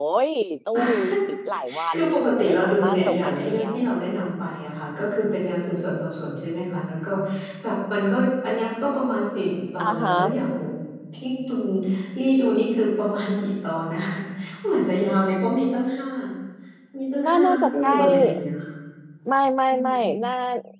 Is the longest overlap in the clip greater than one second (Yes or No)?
Yes